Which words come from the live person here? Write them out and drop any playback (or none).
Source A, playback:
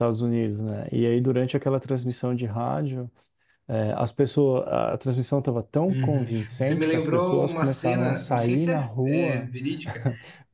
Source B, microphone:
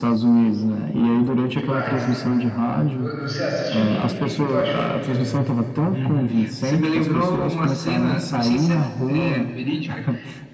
demais. Vo- Você assistiu? O que, que, o que que tu achou do filme?